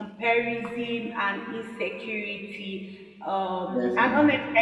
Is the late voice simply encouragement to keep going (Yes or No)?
Yes